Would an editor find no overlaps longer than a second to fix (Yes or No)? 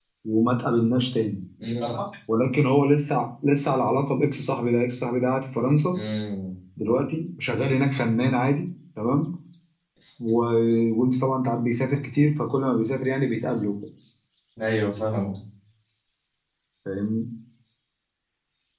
Yes